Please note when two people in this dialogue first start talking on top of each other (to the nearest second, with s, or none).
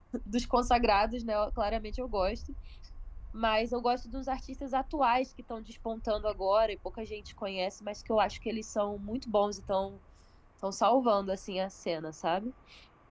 none